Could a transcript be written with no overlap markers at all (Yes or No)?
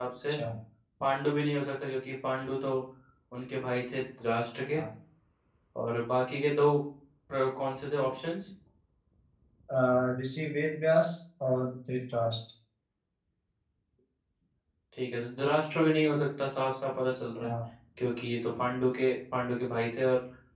Yes